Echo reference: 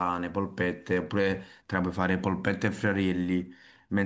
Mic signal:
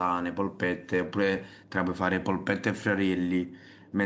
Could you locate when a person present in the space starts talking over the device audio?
none

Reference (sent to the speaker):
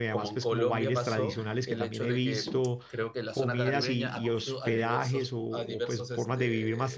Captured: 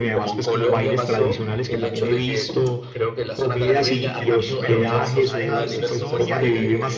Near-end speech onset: 4.1 s

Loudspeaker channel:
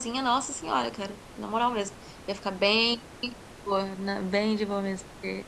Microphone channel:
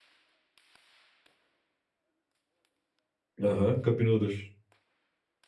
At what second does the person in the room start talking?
3.4 s

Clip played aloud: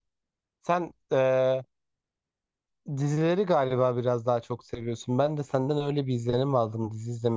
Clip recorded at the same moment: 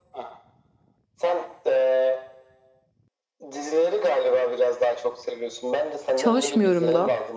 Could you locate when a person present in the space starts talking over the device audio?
6.2 s

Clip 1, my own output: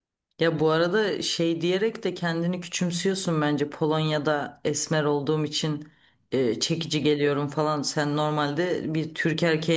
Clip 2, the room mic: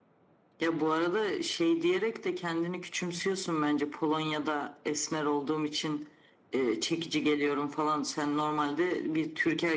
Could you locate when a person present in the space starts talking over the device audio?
none

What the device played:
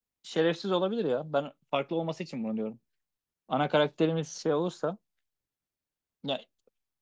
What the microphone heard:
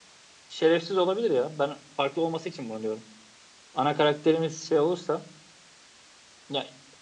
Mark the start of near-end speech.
none

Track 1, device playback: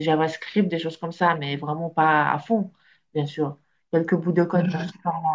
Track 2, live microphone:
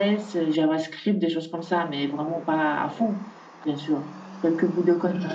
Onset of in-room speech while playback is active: none

